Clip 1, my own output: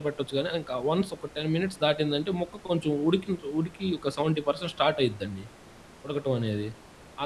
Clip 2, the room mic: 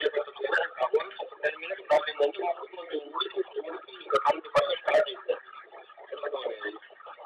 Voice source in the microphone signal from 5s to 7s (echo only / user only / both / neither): echo only